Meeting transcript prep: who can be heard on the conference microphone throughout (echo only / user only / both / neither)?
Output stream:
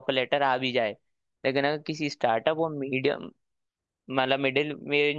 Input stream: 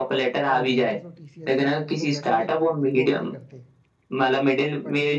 both